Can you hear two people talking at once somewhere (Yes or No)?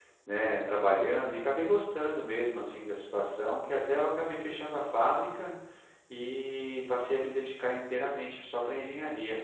No